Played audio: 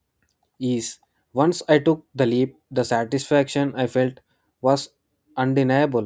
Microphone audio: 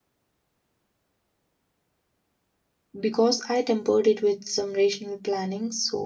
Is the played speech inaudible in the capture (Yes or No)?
Yes